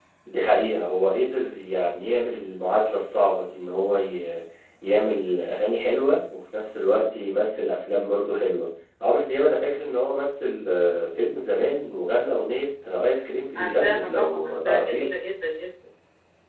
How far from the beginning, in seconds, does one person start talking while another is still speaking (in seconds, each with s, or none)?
13.6 s